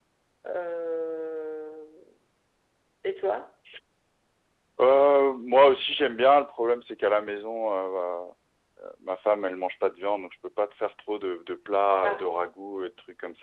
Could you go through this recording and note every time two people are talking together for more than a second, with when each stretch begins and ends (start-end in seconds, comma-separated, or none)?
none